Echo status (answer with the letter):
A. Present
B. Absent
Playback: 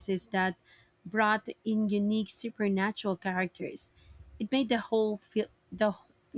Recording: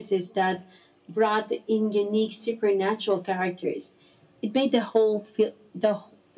A